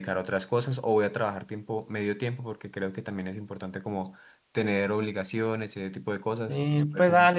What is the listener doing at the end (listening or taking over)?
taking over